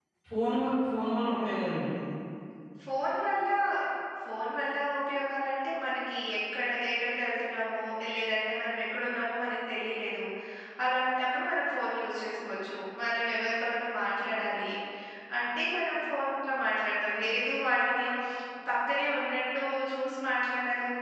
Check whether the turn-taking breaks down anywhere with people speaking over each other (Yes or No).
No